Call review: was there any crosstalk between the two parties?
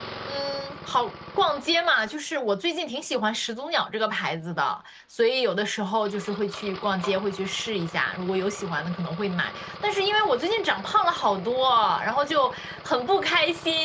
No

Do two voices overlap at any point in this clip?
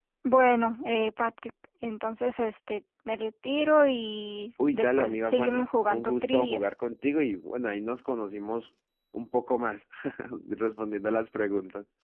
Yes, from 4.6 s

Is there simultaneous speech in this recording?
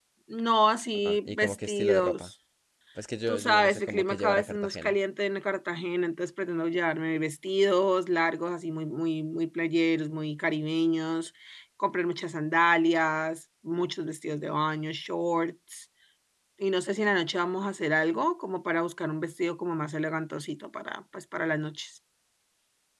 Yes, from 0.9 s

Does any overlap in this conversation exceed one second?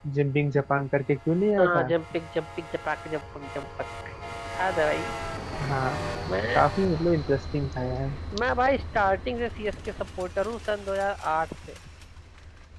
No

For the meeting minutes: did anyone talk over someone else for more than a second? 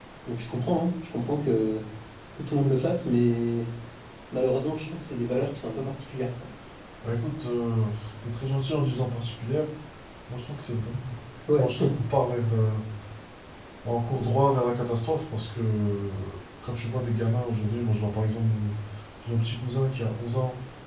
No

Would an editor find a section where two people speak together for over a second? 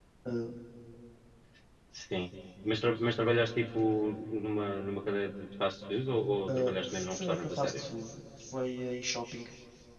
Yes, from 6.5 s

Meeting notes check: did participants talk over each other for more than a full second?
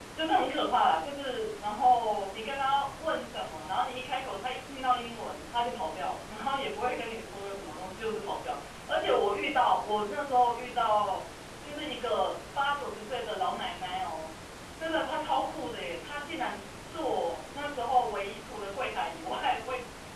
No

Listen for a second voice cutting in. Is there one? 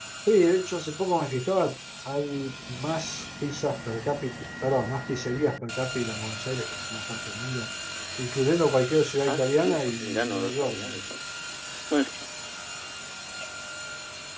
Yes, from 9.3 s

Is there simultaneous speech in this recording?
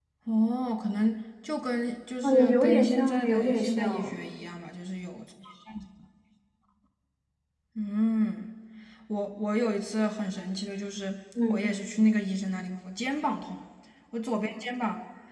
Yes, from 2.2 s

